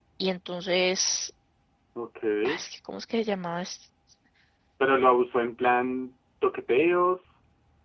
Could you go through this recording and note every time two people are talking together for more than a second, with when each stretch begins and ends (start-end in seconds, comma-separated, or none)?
none